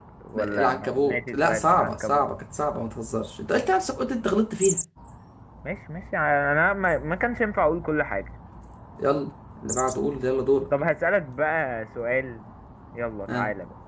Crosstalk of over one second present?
Yes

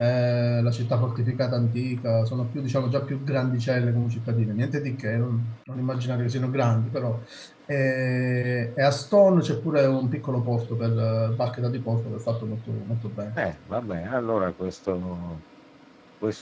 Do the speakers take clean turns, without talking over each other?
Yes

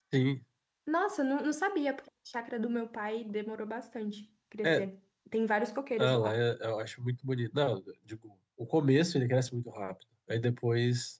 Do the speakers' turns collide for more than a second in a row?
No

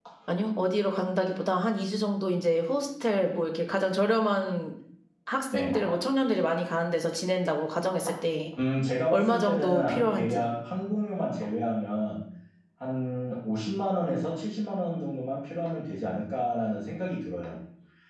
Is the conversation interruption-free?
No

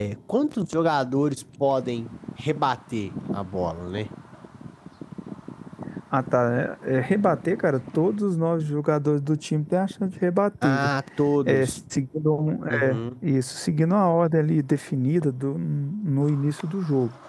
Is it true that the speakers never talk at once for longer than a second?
Yes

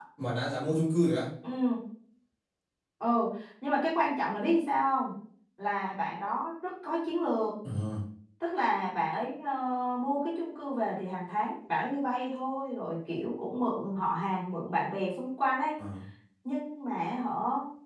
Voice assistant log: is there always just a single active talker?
Yes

